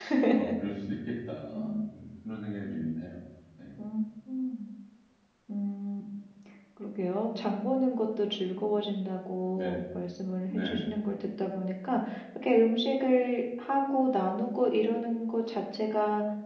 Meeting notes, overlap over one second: none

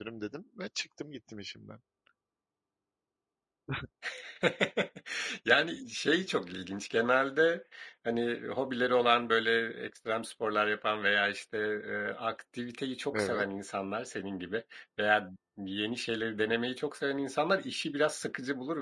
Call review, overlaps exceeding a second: none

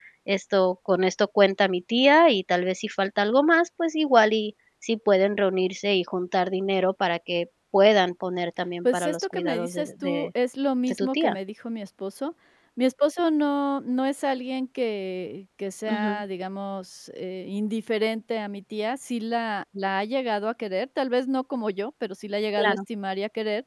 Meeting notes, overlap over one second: present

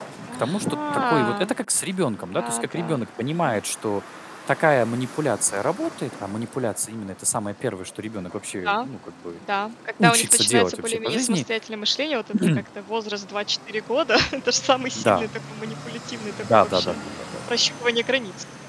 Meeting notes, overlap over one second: present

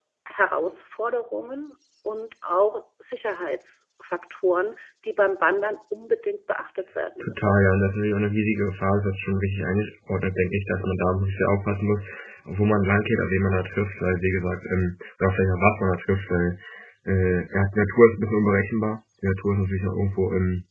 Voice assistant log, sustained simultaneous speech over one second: none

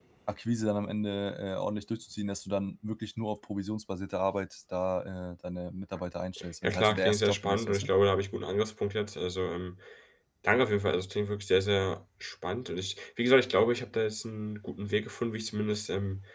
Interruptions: present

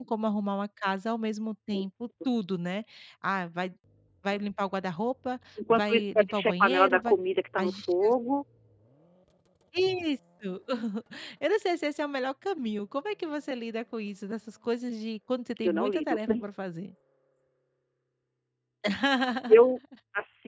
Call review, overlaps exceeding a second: present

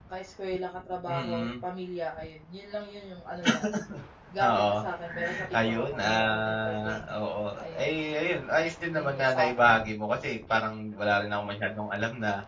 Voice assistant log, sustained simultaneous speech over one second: present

